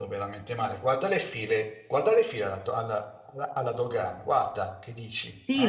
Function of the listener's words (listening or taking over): taking over